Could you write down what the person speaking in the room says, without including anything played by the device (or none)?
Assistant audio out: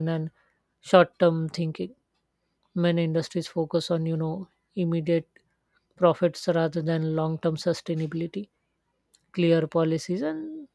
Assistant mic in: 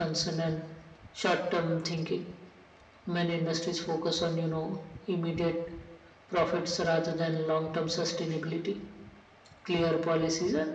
none